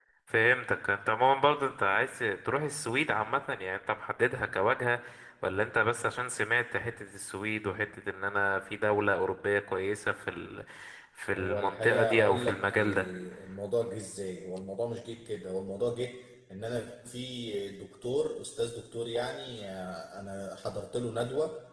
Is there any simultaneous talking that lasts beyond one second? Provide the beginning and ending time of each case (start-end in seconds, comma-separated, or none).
11.4-13.1